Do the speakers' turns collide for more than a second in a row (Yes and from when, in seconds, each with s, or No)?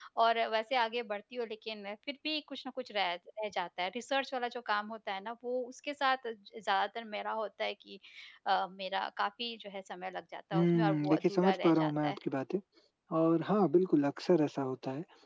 Yes, from 10.5 s